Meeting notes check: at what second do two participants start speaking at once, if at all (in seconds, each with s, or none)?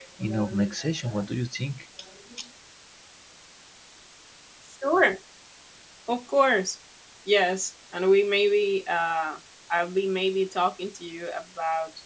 none